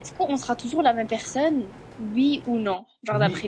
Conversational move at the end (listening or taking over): taking over